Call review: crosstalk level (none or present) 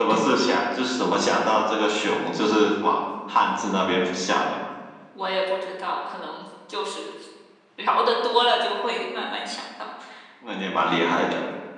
none